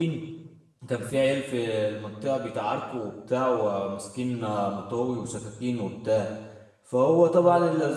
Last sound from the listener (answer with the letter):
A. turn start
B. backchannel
B